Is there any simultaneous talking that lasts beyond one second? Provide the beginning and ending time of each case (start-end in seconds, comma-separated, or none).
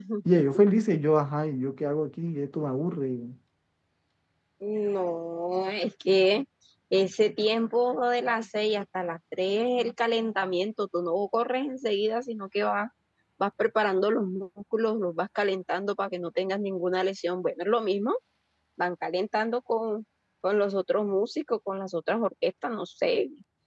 none